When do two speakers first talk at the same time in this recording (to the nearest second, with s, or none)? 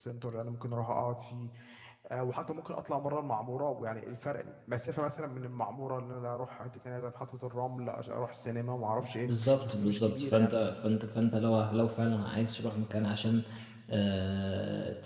9 s